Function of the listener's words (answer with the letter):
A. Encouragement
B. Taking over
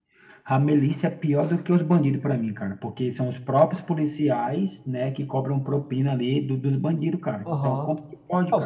B